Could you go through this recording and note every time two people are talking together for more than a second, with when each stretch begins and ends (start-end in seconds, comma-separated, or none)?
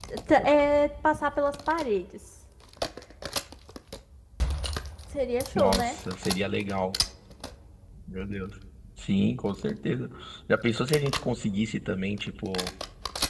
none